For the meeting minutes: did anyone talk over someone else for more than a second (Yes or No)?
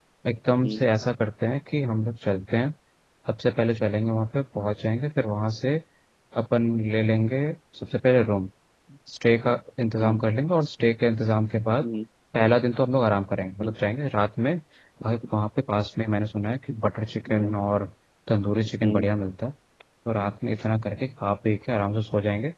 No